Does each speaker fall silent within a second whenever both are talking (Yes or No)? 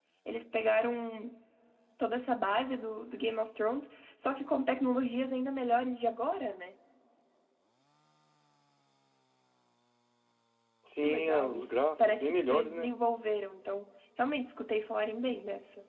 No